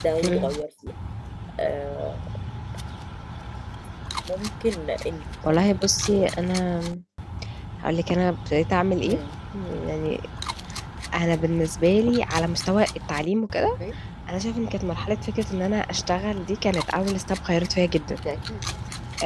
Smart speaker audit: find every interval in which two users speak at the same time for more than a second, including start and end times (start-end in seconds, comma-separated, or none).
none